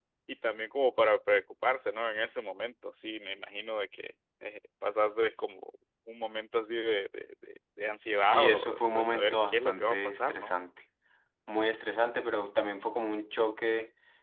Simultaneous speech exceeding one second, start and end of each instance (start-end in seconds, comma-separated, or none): 8.1-10.6